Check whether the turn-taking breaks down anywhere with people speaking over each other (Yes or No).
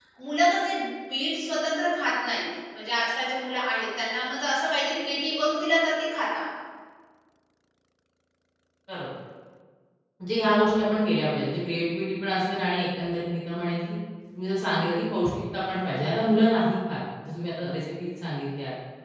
No